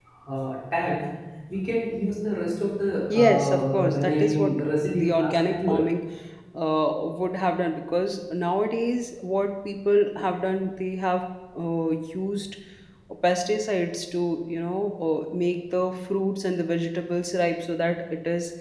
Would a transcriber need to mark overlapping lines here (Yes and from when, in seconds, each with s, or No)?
Yes, from 3.1 s